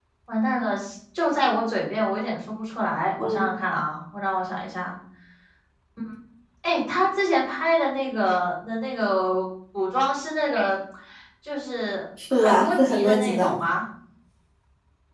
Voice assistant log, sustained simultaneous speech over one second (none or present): present